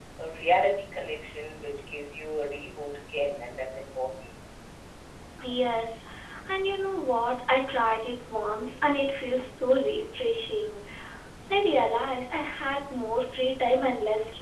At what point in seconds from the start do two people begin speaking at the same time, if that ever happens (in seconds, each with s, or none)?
none